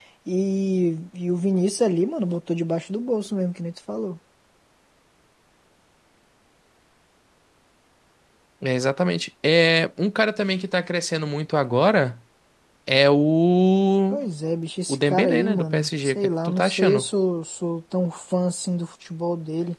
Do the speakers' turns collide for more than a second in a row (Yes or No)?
Yes